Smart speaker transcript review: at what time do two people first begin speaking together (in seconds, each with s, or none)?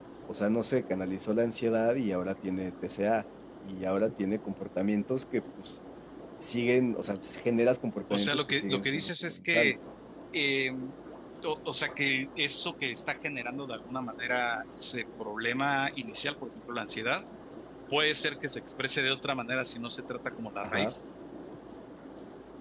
8.1 s